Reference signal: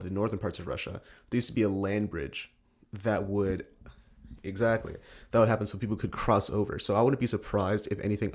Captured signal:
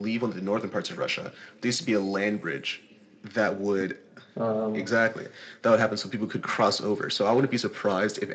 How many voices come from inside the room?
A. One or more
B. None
A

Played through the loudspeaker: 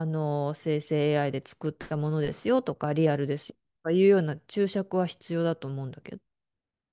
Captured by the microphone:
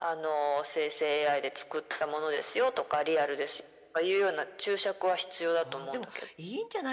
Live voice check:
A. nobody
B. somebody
B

